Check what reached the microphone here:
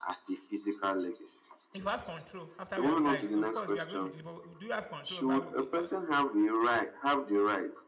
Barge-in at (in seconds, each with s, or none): 1.7 s